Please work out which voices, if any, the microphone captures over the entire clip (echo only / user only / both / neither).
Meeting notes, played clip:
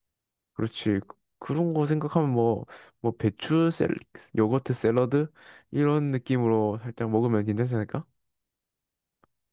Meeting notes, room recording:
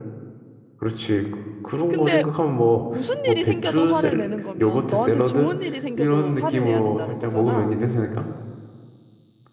both